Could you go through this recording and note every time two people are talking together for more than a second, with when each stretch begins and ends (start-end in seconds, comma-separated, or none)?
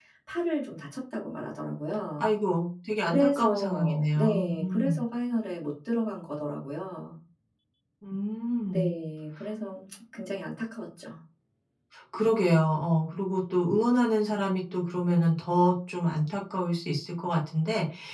3.0-5.0